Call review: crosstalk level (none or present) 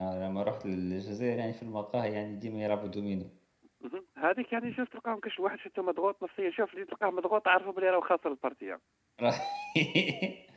none